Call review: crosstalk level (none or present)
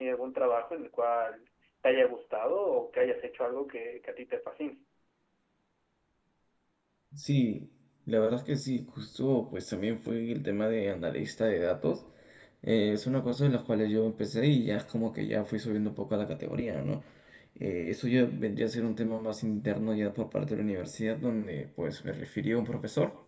none